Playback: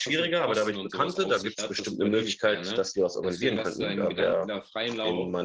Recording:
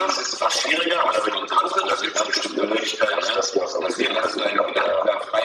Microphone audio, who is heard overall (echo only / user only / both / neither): echo only